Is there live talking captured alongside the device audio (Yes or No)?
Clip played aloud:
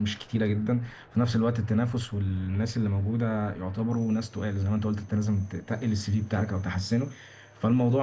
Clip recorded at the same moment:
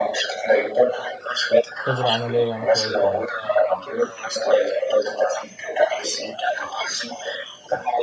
Yes